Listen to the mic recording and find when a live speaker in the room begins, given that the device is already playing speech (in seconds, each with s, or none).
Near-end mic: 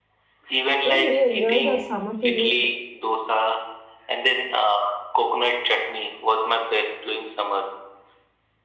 0.8 s